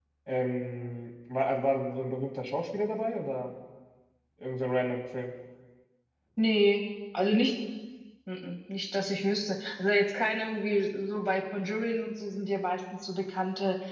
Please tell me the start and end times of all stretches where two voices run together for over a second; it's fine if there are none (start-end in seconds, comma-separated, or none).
none